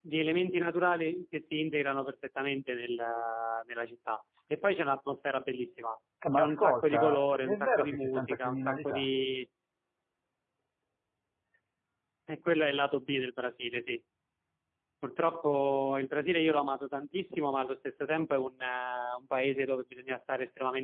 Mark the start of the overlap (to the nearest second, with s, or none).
6 s